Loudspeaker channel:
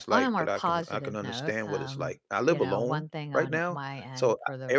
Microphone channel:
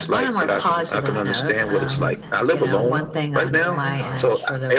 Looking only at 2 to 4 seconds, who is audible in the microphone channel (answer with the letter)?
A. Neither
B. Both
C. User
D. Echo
B